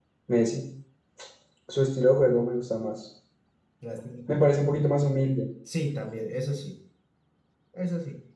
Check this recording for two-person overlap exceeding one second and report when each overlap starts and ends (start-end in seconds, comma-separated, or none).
none